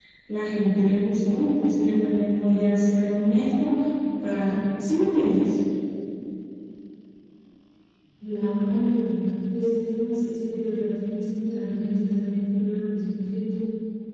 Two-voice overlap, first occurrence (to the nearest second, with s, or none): none